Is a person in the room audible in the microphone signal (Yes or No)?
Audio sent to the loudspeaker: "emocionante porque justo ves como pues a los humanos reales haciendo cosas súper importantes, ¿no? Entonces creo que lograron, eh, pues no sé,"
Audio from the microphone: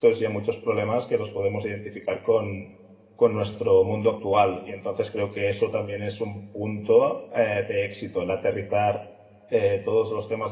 Yes